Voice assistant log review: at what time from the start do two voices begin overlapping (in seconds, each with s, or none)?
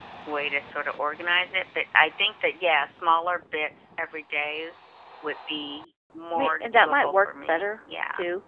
6.3 s